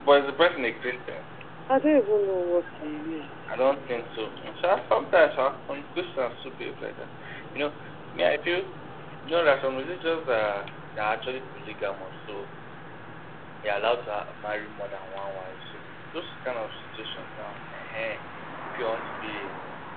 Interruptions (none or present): none